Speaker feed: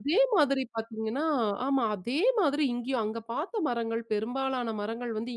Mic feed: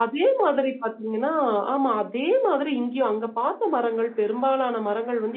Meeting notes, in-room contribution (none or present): none